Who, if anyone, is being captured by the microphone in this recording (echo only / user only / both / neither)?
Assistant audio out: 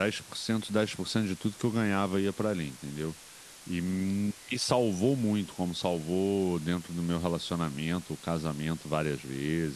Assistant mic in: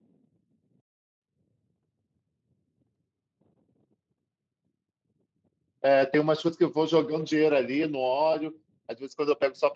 user only